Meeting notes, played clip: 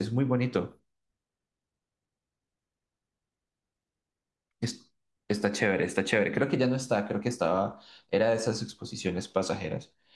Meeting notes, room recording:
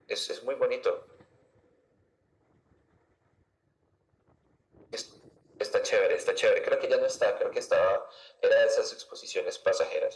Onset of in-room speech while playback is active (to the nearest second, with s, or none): none